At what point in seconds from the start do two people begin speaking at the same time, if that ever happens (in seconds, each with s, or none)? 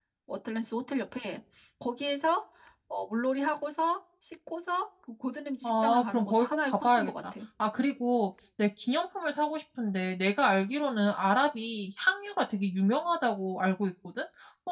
5.6 s